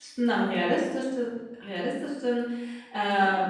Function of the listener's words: listening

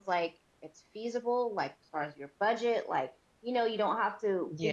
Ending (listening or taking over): listening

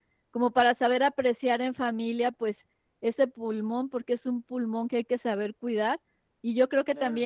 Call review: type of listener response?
listening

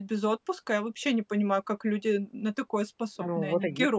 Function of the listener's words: taking over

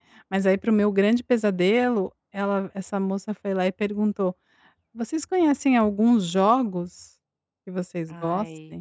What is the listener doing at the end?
listening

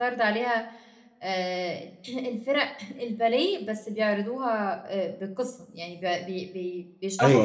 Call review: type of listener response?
taking over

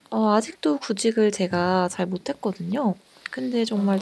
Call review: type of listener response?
listening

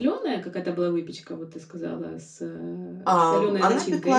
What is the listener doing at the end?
taking over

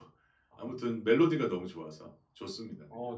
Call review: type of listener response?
taking over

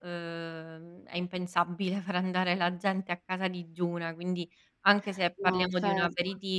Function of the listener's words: listening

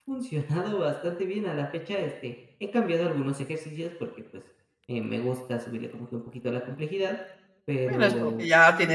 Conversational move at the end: taking over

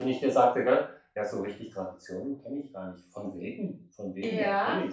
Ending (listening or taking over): taking over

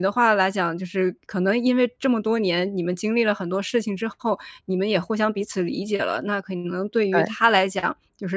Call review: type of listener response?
listening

